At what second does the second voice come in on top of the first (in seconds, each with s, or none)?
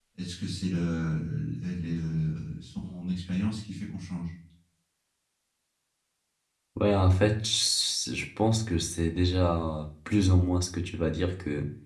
none